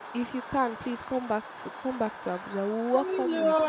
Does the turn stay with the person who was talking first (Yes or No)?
No